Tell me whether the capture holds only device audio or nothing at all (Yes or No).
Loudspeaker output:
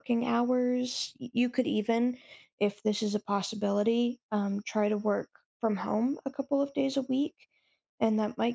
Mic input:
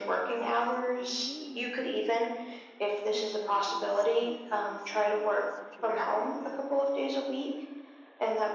No